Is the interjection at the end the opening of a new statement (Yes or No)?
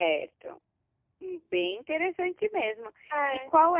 No